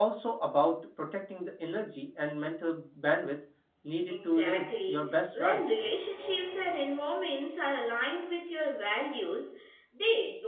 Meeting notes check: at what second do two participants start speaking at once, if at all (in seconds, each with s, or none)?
4.1 s